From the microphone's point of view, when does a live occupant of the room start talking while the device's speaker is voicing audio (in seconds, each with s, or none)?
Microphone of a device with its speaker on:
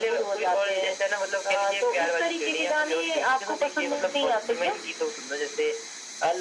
none